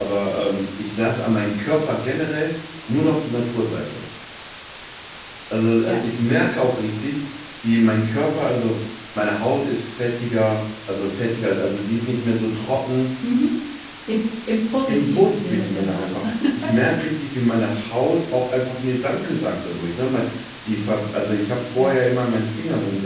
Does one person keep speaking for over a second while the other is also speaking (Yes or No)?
Yes